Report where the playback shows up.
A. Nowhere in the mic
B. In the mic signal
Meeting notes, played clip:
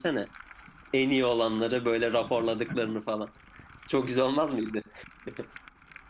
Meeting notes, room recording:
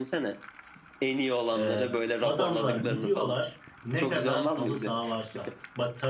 B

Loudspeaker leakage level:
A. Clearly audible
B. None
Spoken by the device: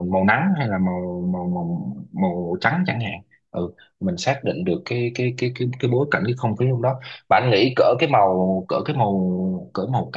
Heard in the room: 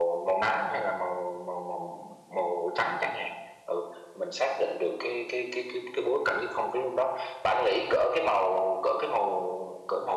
A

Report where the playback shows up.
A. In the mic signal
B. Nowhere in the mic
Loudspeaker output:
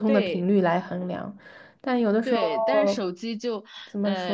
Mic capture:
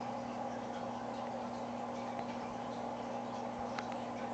B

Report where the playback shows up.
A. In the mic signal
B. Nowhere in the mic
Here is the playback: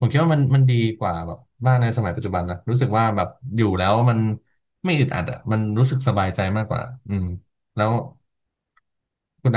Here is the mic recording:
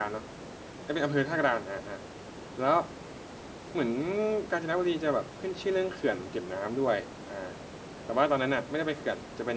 B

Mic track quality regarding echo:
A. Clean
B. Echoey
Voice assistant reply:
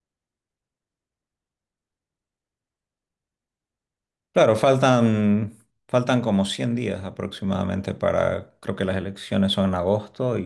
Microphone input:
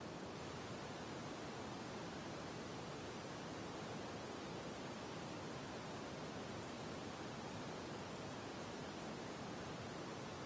A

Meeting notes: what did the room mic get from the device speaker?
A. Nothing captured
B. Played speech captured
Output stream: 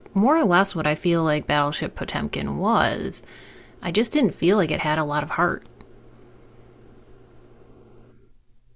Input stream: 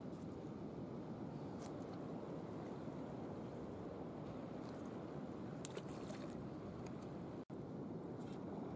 A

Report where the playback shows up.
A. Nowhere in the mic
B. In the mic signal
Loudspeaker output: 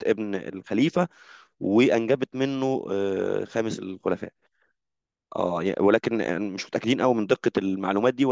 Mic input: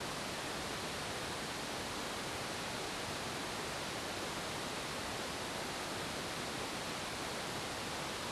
A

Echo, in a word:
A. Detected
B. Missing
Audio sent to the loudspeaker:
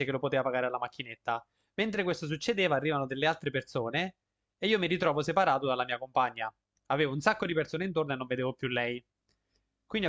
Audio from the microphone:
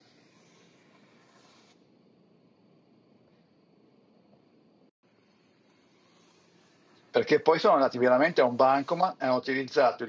B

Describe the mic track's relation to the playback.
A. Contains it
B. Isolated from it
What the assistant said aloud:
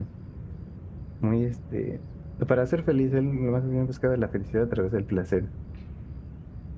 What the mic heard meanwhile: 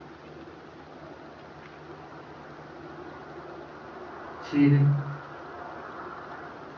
B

